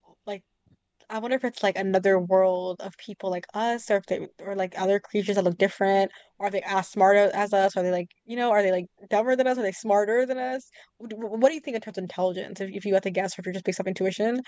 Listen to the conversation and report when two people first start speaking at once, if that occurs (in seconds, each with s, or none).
none